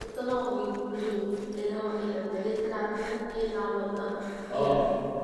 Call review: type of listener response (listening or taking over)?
taking over